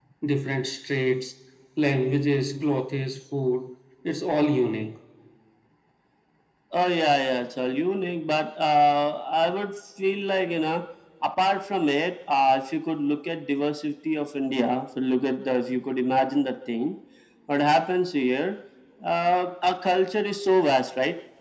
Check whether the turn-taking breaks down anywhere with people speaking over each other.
No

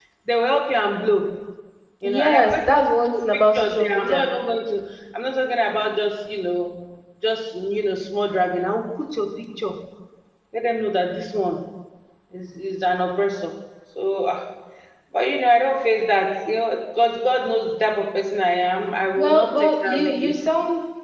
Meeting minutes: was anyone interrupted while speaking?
Yes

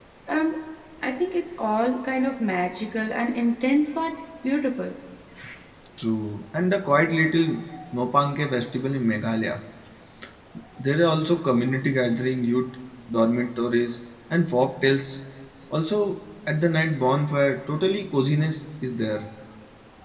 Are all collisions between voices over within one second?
Yes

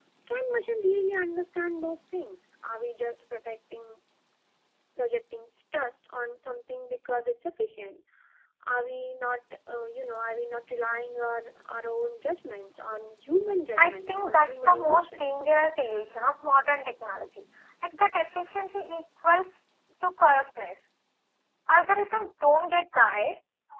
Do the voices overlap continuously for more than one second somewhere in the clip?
Yes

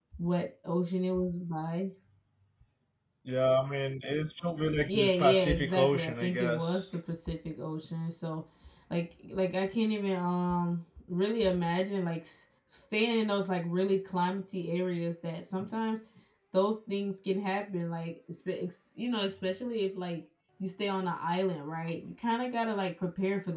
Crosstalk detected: Yes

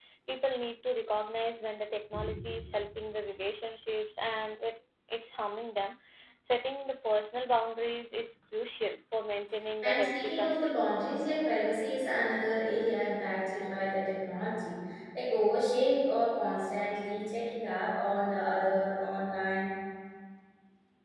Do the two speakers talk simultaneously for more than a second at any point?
Yes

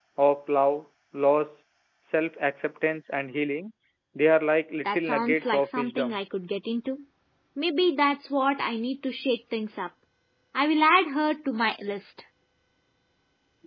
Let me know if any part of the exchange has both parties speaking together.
Yes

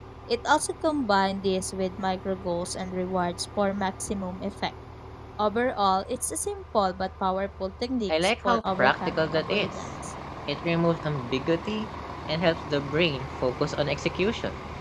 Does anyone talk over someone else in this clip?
Yes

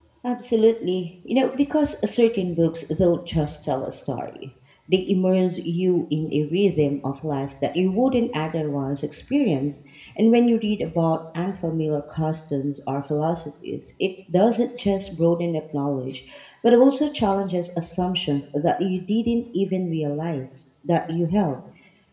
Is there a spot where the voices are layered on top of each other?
No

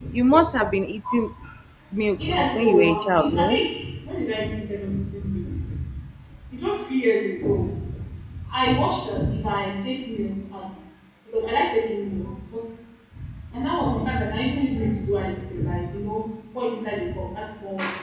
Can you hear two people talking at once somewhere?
Yes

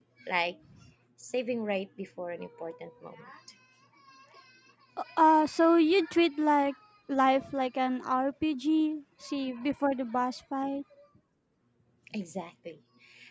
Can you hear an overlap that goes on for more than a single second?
No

